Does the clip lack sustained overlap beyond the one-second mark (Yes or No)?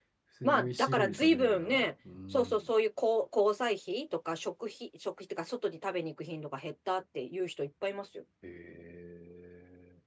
No